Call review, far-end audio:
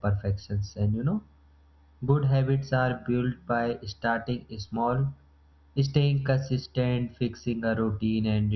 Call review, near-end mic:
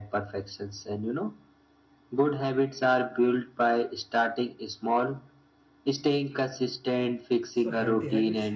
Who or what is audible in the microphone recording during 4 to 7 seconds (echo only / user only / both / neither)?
echo only